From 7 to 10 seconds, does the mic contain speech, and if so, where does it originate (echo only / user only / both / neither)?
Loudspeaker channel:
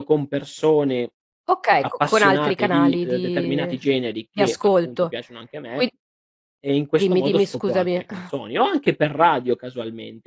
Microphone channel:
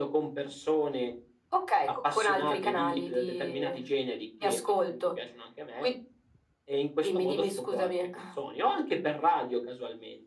echo only